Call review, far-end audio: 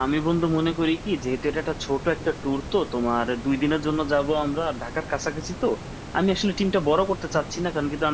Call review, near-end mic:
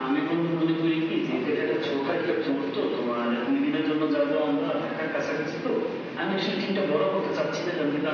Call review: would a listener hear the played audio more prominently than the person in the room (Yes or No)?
Yes